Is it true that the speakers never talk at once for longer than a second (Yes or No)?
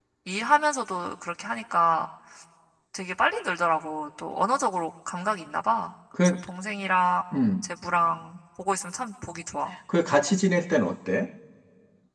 Yes